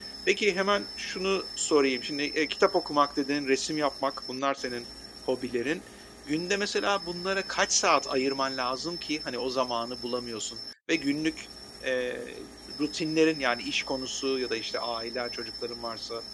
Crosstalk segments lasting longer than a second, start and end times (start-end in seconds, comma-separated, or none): none